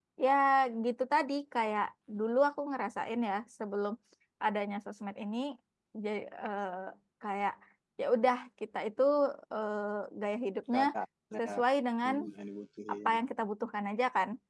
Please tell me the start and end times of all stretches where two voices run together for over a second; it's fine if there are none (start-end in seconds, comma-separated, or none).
none